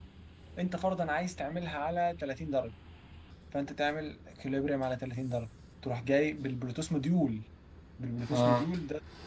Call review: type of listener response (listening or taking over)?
listening